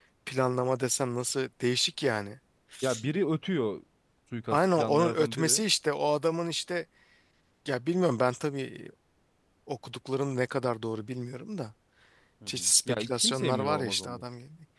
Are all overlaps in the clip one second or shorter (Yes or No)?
No